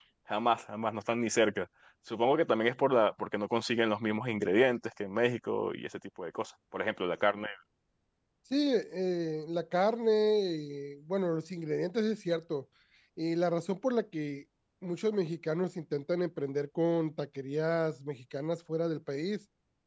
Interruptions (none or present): none